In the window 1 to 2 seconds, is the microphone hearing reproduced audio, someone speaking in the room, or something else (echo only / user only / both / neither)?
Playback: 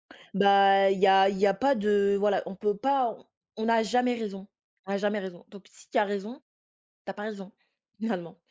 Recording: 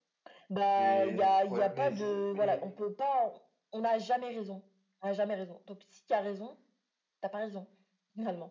both